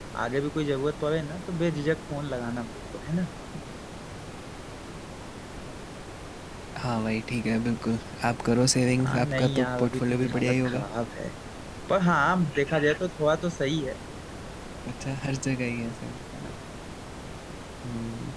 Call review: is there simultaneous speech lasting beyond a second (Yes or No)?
Yes